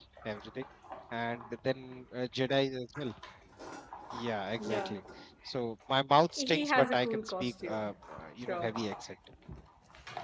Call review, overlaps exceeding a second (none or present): present